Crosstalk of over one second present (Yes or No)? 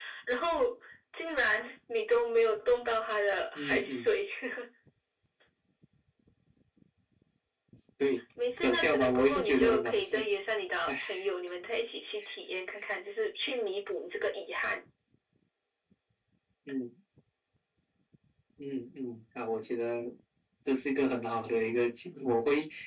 Yes